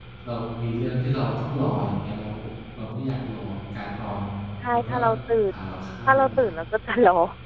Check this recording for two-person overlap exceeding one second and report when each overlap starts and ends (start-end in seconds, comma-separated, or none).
none